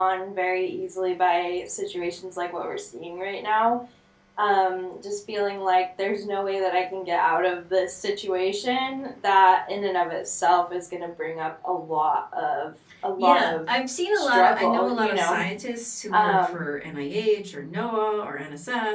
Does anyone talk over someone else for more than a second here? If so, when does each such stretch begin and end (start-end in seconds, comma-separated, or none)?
14.2-15.4